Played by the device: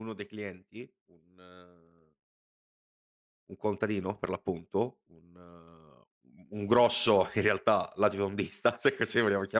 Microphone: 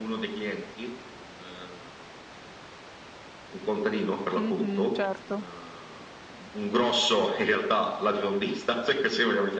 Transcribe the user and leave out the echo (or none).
Mh-mh, certo.